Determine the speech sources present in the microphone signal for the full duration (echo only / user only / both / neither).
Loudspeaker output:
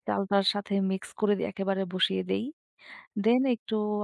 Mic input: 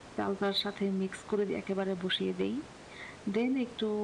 echo only